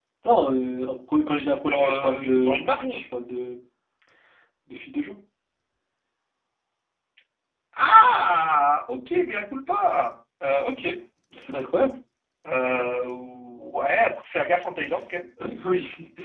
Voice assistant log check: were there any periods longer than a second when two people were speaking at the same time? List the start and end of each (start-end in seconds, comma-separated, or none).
1.6-3.0